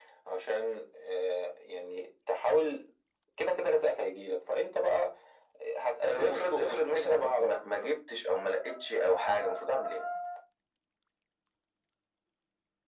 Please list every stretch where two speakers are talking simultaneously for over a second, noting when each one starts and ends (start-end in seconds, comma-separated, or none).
6.0-7.9